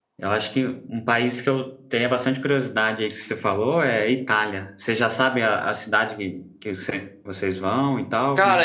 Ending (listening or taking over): taking over